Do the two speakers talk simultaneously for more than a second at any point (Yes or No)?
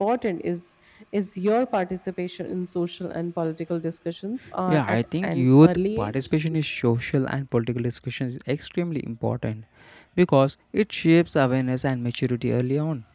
Yes